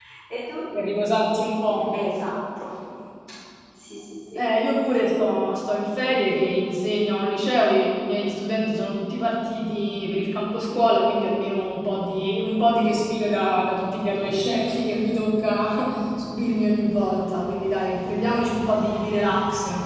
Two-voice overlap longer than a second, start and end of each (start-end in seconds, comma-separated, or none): none